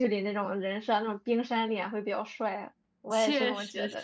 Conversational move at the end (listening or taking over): taking over